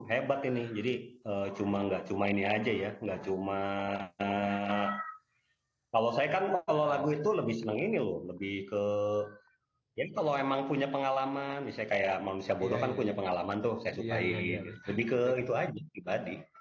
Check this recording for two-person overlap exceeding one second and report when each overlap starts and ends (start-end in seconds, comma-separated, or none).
14.0-15.4